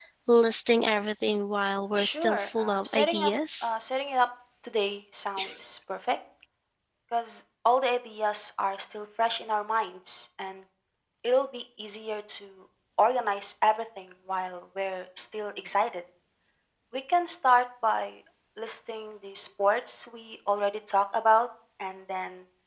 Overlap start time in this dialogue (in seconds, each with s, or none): 2.0 s